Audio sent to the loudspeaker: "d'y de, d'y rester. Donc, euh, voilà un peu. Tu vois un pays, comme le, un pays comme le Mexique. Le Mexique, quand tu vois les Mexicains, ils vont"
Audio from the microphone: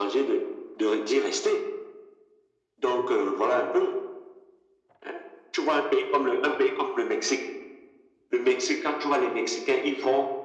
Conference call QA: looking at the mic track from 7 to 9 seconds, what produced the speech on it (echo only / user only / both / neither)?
echo only